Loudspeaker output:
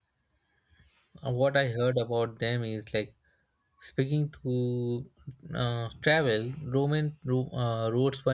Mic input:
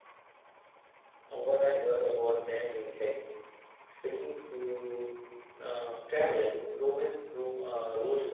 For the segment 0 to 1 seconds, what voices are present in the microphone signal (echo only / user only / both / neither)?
neither